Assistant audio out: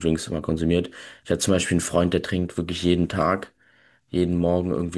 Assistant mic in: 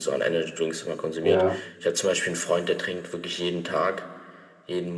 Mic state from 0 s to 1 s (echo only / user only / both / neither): echo only